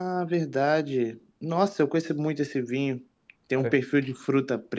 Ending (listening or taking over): listening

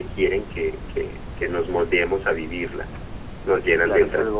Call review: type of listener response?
taking over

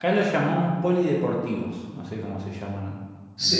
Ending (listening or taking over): taking over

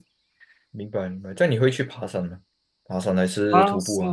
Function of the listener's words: taking over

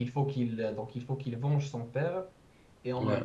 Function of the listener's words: listening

